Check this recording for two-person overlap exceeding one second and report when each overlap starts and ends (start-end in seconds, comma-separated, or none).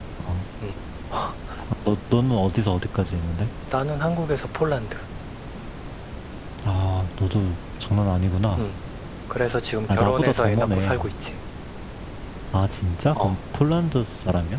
9.9-11.1